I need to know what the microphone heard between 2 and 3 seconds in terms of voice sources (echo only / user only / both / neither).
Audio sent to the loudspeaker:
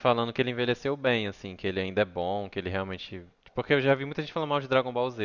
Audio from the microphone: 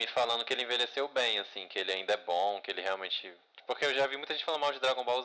echo only